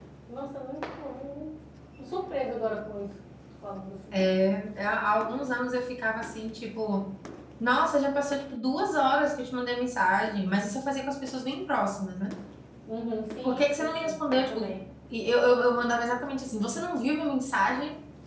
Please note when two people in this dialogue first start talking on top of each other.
13.4 s

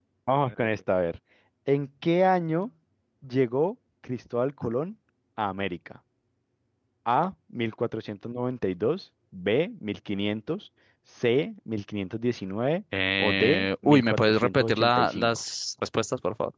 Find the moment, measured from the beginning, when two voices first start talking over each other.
13.2 s

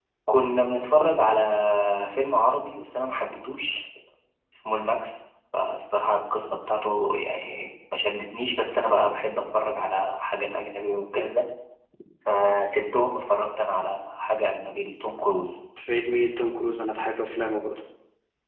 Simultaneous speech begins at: none

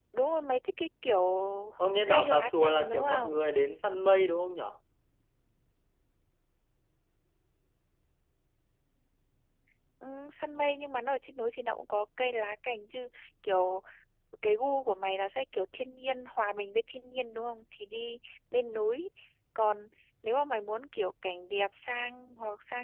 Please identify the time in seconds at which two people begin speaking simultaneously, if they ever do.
2.1 s

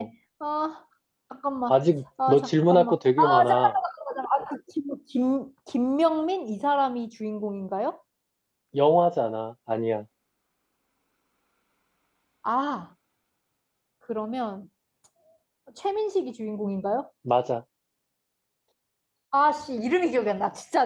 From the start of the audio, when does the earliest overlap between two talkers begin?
2.3 s

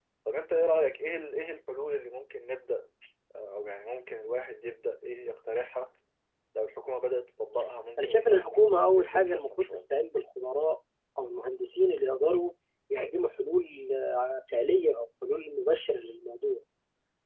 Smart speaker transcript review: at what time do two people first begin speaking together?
8.0 s

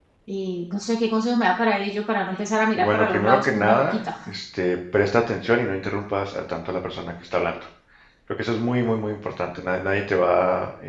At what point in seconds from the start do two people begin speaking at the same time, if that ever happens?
2.8 s

